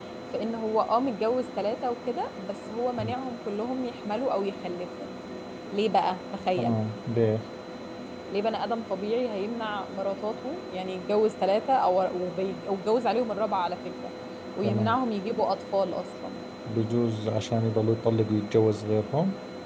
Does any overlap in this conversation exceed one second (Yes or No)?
No